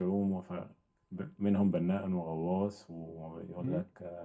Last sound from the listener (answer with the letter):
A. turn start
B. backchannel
B